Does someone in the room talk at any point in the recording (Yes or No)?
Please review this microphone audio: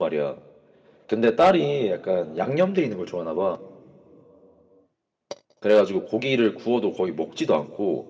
Yes